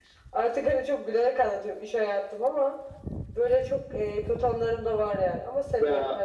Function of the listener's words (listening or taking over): taking over